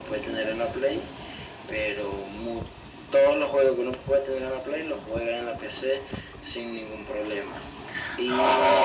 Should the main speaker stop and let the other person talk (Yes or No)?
No